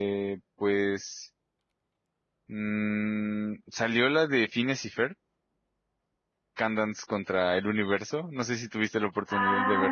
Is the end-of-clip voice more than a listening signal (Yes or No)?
Yes